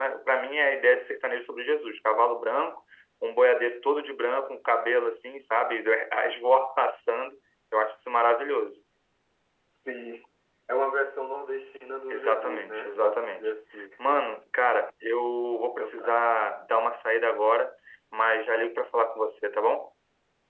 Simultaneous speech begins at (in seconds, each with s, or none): 12.1 s